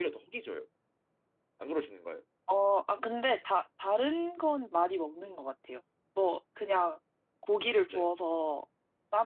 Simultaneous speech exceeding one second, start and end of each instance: none

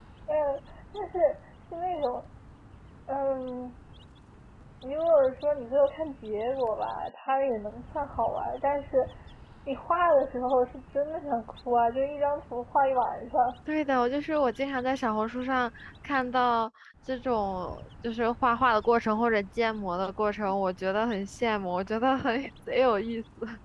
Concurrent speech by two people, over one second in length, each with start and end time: none

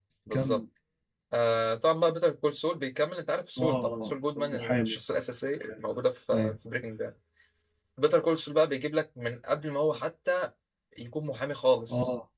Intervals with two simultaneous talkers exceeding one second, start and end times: 3.6-5.0

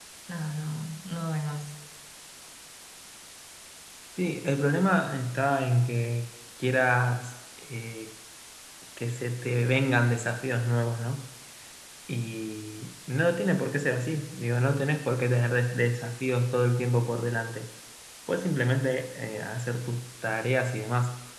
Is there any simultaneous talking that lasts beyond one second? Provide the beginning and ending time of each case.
none

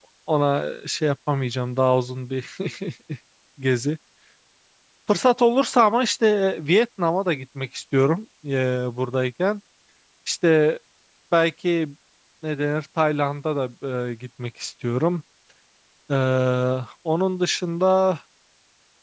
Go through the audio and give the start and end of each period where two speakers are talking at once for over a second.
none

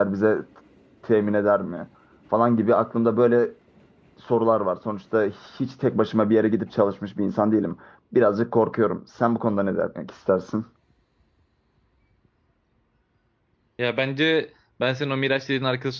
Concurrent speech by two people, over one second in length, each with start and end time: none

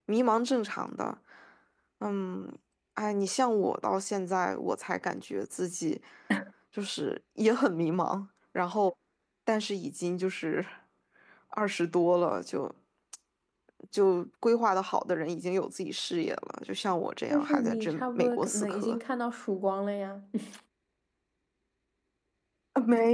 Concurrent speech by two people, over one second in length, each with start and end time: 17.3-19.0

